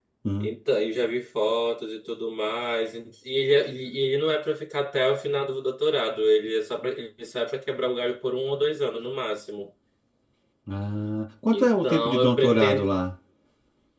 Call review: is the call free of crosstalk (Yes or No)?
No